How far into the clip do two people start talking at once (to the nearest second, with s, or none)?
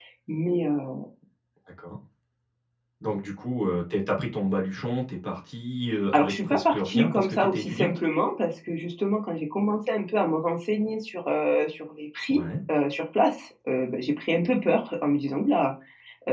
6 s